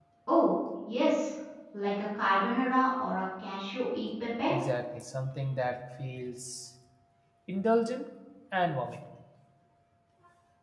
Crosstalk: none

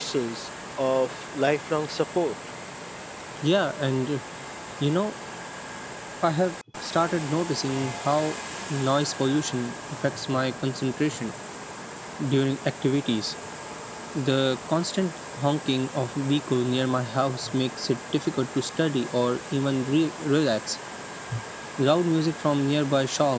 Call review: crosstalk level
none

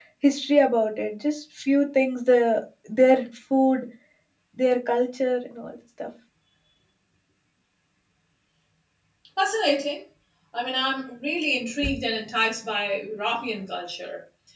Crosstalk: none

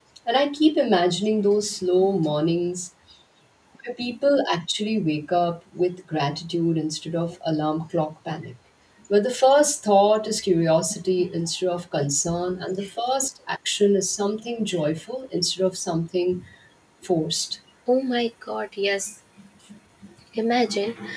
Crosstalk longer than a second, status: none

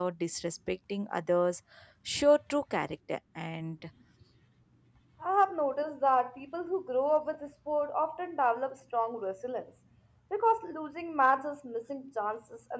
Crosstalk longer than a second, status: none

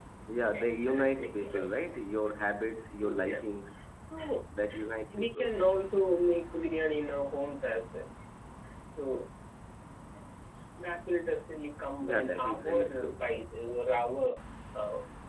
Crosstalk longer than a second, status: present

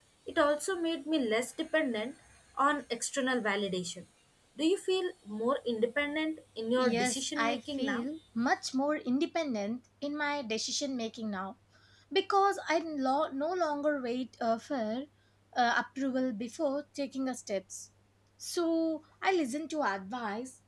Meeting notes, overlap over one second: present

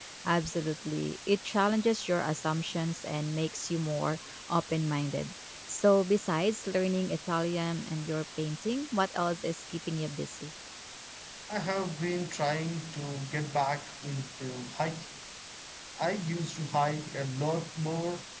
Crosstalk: none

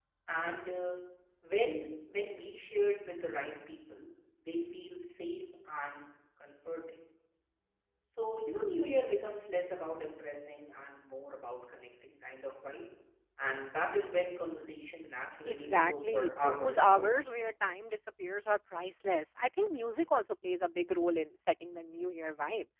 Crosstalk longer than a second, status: present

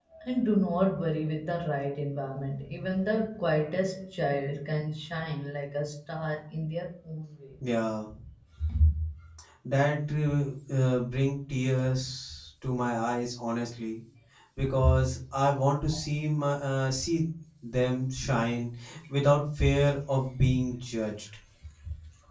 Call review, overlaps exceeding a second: none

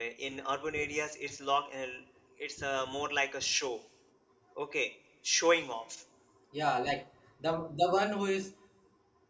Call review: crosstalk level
none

